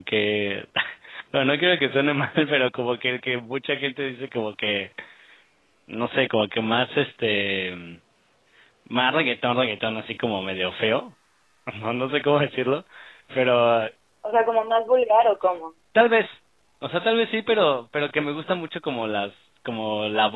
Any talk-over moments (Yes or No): No